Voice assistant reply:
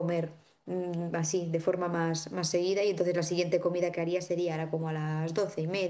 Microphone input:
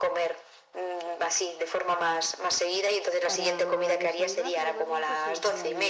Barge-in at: 3.2 s

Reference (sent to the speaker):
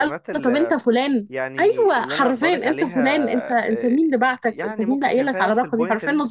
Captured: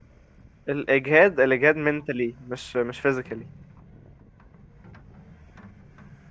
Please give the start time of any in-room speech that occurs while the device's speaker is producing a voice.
0.7 s

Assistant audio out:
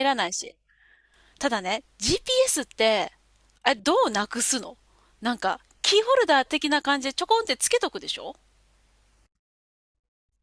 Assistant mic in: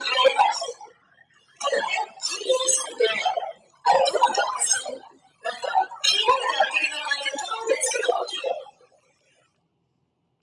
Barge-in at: none

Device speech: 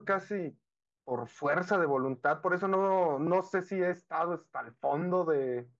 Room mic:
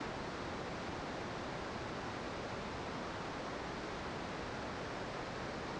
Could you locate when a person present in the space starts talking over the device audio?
none

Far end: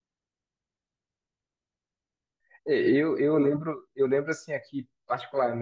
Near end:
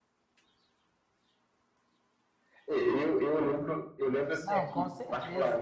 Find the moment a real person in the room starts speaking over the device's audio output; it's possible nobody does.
4.4 s

